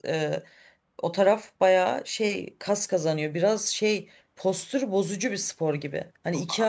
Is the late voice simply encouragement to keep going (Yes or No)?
Yes